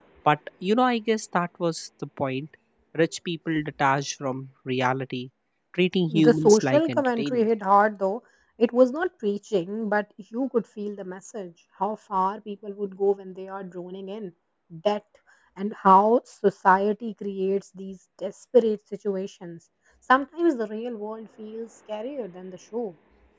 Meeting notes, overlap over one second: present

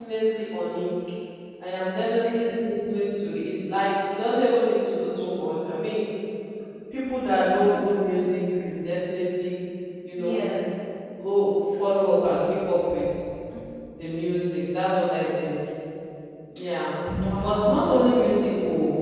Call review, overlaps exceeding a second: none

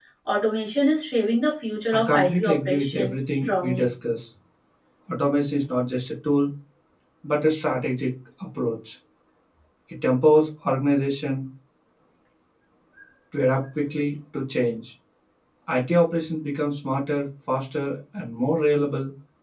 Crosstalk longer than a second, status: present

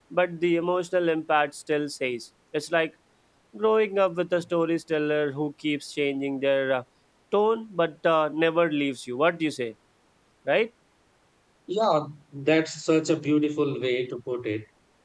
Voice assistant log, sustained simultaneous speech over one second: none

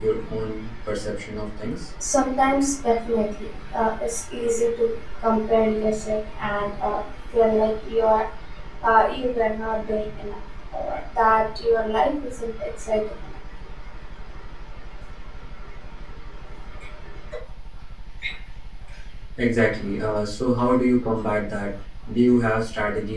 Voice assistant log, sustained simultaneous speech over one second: none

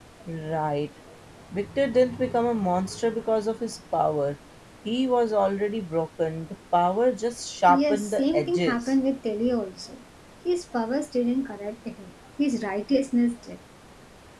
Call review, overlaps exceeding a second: present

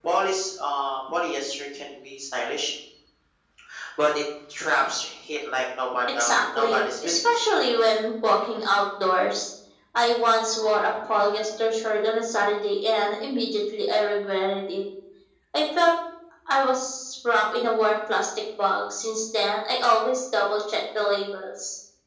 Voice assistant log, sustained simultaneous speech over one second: present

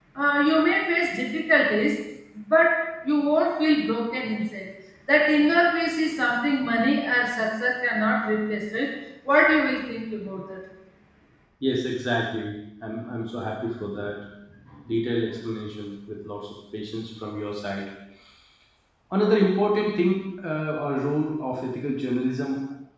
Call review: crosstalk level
none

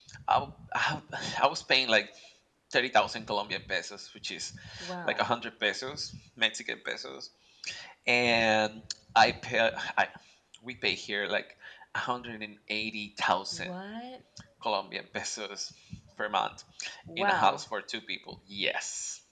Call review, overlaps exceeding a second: none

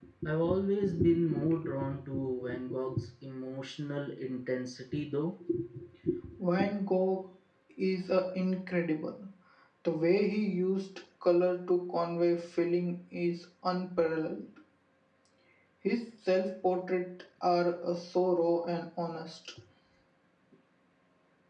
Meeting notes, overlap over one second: none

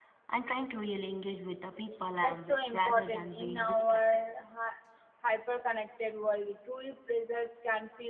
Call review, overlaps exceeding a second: present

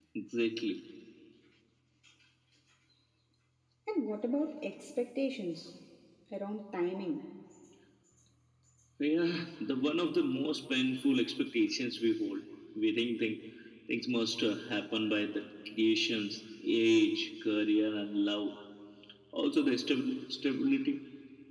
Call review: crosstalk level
none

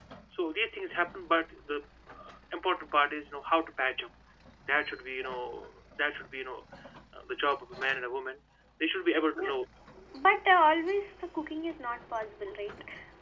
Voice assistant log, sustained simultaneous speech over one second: none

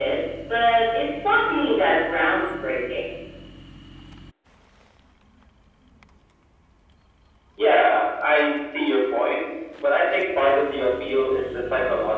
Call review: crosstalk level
none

